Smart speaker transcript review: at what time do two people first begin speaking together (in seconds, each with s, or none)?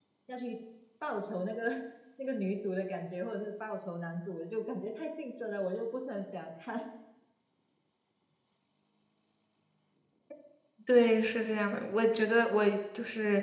none